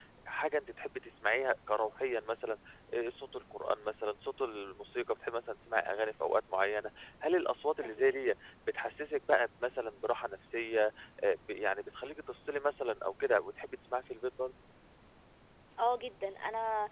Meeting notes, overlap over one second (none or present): none